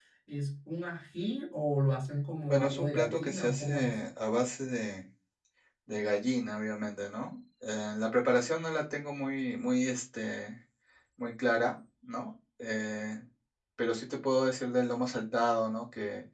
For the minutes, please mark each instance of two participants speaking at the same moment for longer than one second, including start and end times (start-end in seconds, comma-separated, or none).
2.5-3.9